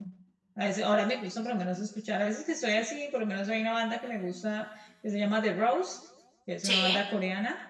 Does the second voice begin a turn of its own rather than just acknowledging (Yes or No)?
No